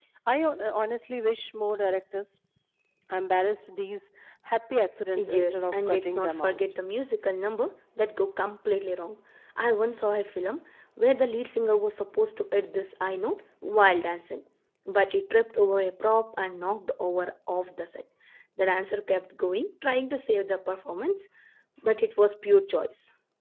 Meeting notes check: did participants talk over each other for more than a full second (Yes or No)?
Yes